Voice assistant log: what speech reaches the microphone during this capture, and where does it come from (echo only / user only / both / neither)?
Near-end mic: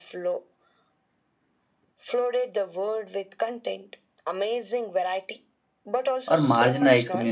both